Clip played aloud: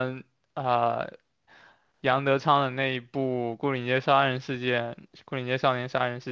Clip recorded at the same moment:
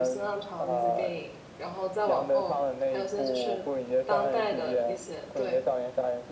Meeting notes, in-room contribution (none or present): present